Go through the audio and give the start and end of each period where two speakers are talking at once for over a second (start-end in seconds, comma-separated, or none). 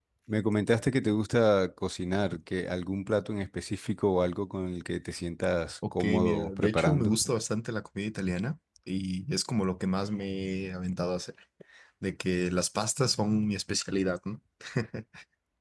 5.9-7.1